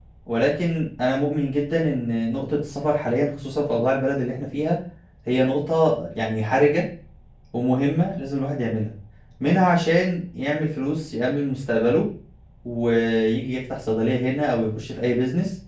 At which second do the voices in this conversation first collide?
none

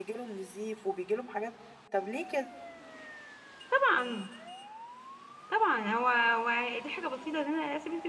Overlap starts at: none

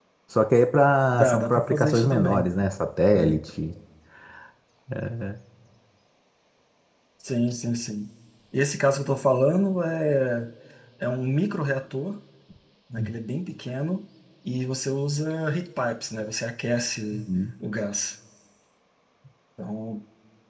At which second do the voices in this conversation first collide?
1 s

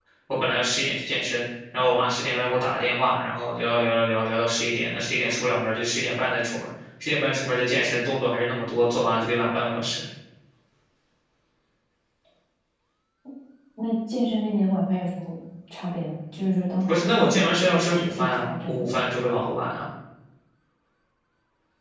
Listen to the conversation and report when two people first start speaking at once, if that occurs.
17 s

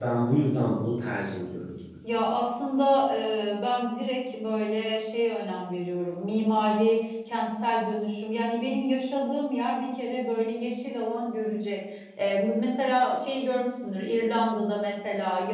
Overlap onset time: none

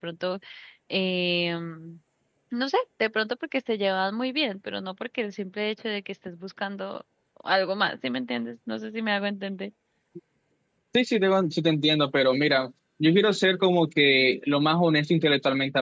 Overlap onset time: none

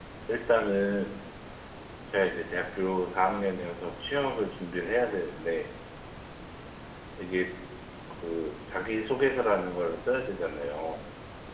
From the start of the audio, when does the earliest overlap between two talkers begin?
none

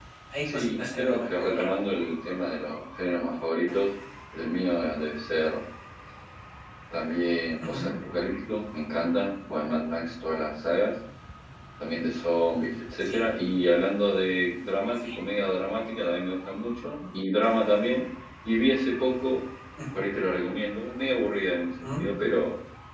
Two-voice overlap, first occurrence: 1 s

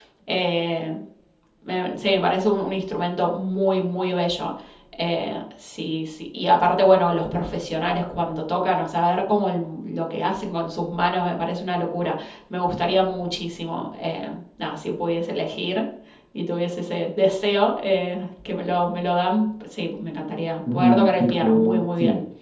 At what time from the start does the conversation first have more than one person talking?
21 s

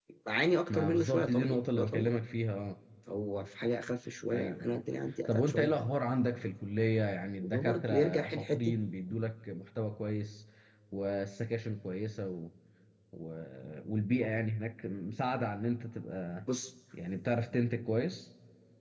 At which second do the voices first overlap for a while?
1 s

